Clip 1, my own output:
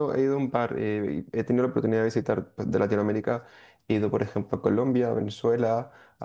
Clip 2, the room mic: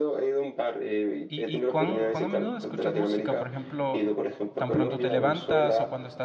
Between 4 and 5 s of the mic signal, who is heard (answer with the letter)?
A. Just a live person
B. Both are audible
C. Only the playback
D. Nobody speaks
B